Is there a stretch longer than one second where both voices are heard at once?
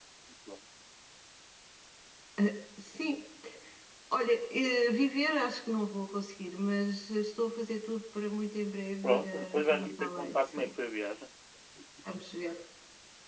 Yes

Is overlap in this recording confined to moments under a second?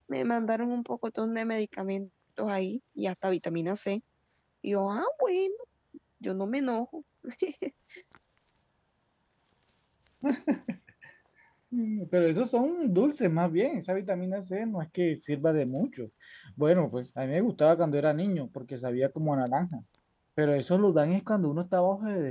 Yes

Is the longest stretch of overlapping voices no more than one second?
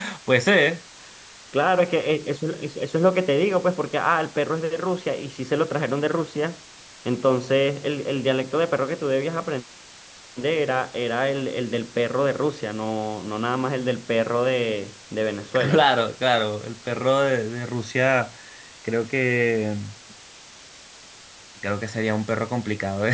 Yes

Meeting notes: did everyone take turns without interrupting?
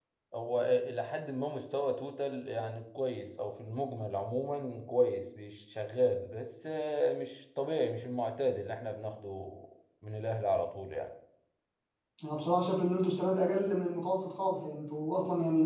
Yes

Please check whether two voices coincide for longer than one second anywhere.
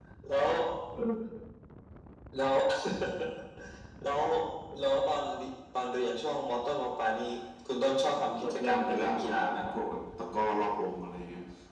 Yes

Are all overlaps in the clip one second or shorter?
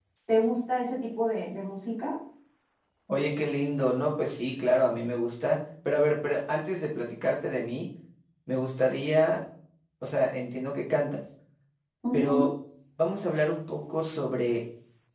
Yes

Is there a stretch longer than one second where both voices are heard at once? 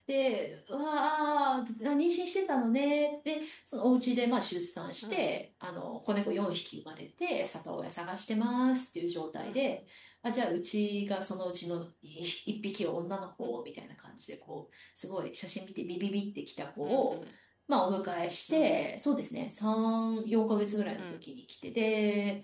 No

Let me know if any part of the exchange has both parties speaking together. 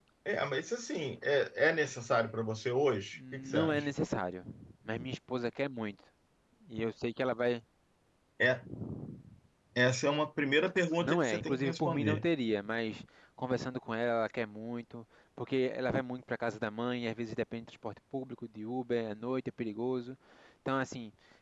Yes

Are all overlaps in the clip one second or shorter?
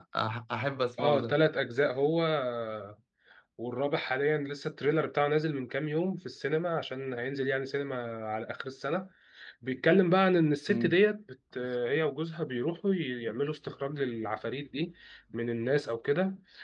Yes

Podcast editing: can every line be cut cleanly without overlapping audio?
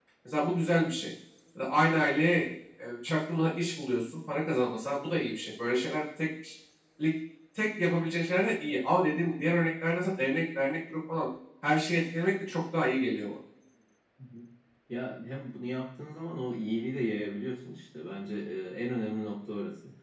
Yes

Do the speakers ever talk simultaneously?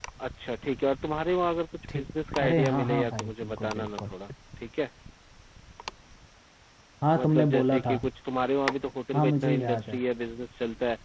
Yes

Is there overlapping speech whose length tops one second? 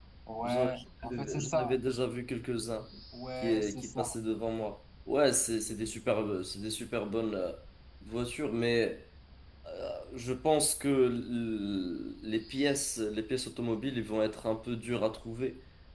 Yes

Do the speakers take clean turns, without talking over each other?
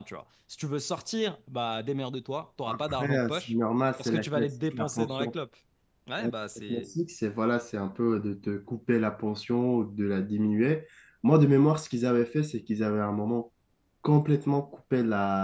No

